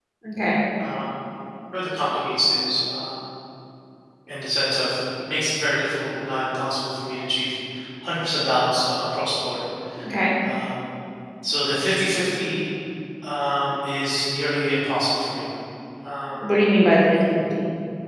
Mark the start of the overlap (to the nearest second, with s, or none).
none